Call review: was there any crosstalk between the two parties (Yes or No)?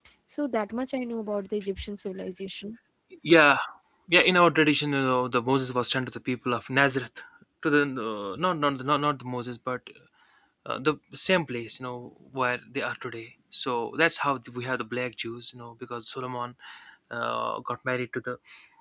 No